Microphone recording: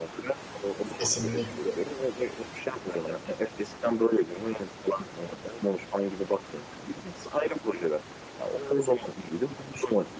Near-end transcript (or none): Kesinlikle.